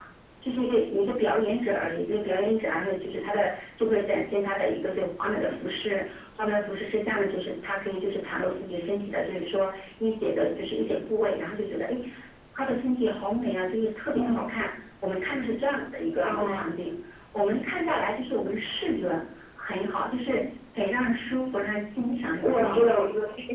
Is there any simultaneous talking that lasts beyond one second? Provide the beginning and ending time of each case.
none

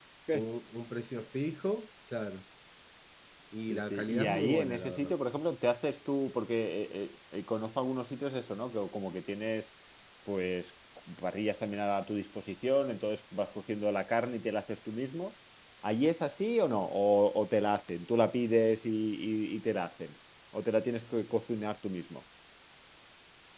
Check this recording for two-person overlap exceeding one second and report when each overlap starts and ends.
3.7-5.1

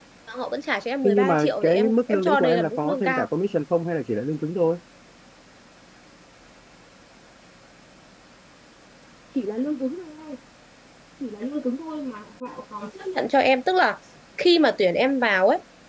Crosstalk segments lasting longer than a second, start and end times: 1.0-3.3

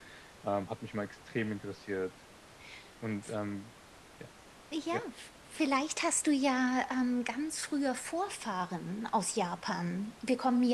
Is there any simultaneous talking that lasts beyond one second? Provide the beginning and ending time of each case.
none

